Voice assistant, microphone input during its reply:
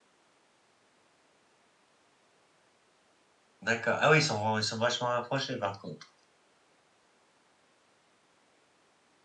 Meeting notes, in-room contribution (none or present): present